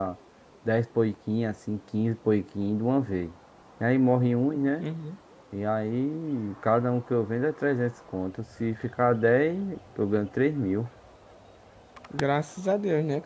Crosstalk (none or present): none